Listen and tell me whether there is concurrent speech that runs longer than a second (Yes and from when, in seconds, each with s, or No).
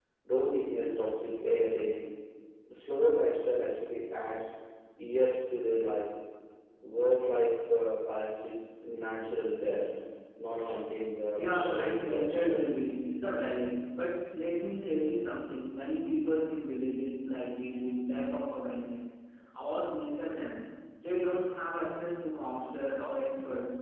Yes, from 11.3 s